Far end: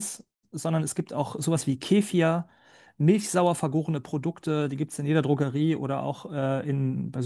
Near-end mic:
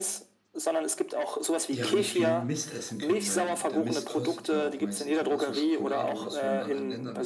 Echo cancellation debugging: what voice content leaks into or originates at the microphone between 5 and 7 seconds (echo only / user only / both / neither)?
both